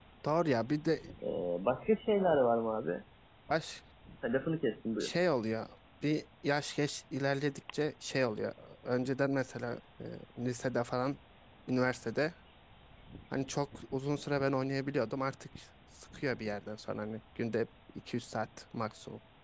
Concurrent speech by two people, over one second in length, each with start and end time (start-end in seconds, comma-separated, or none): none